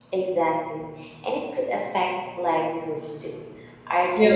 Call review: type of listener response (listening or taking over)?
listening